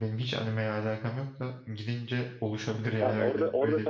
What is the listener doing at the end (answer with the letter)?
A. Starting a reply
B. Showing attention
A